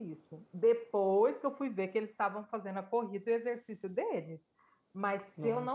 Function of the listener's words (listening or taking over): listening